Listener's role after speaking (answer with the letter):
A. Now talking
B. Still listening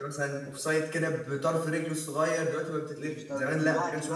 A